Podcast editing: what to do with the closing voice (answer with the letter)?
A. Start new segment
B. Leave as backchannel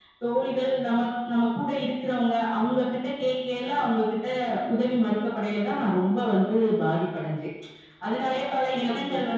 B